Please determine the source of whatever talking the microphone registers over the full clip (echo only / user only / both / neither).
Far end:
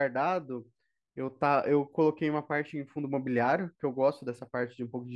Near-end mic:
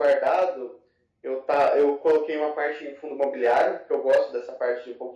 echo only